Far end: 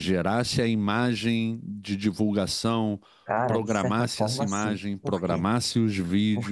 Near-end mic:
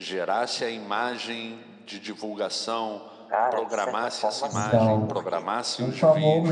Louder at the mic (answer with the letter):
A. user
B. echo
A